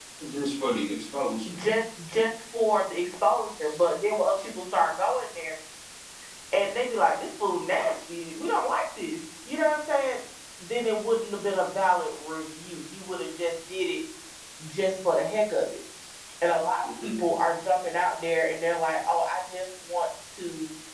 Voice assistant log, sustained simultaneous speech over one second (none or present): none